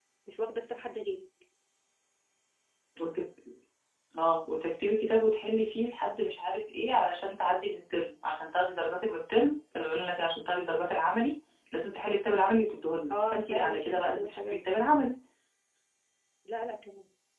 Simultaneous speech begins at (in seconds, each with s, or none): 13.1 s